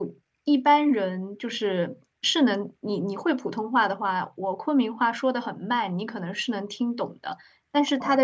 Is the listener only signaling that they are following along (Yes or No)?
Yes